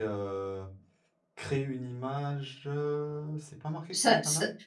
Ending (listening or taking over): taking over